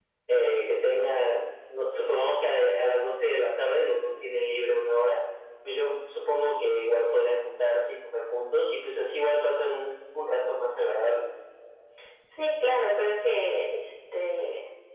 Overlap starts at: none

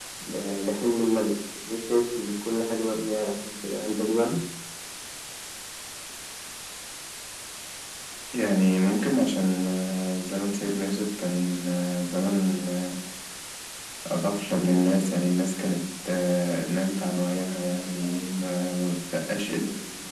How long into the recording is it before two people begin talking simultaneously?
none

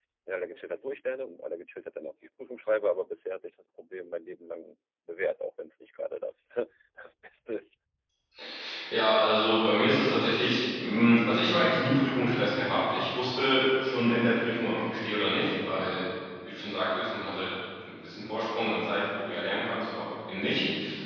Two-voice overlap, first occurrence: none

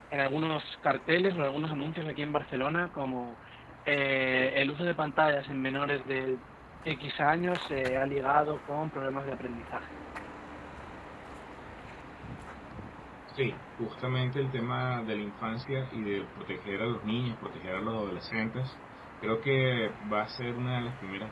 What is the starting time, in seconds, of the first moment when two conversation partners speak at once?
none

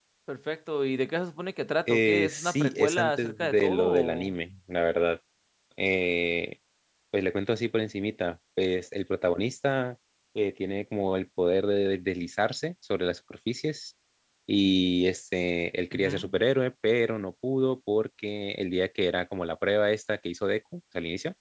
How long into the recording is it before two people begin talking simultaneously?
1.9 s

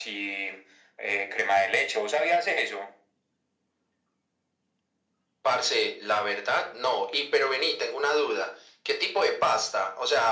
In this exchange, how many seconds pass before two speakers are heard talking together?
none

